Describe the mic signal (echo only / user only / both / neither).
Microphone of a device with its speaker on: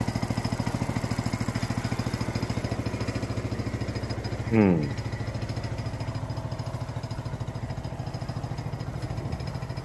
user only